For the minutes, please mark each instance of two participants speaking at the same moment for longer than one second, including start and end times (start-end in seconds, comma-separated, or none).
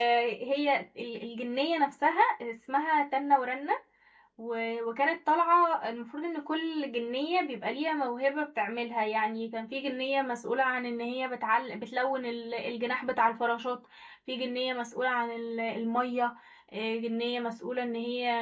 none